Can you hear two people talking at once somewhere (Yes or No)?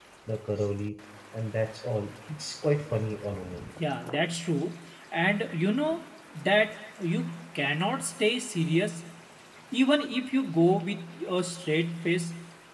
No